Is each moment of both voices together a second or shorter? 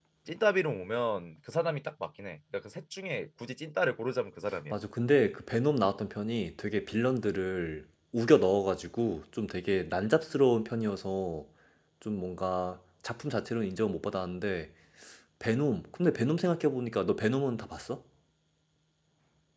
Yes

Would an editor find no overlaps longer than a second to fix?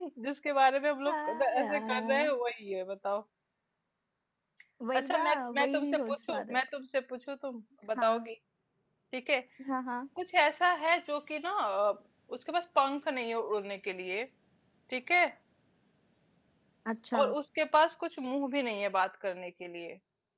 No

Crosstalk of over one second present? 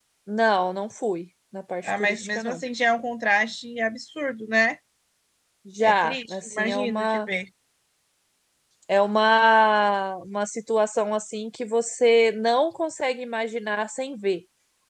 Yes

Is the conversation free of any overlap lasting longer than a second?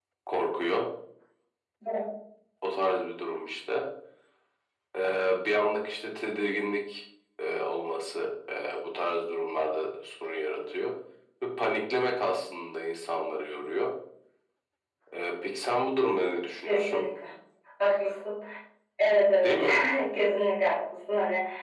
Yes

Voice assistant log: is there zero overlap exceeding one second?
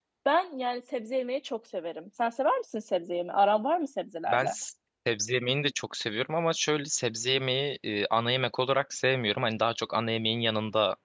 Yes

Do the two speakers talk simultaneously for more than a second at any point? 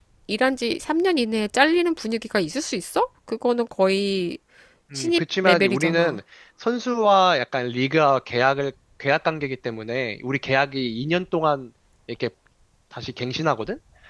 Yes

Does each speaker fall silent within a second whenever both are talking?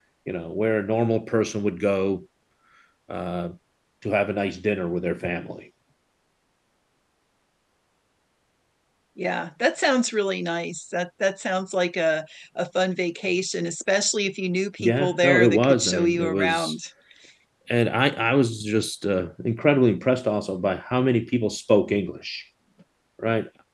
No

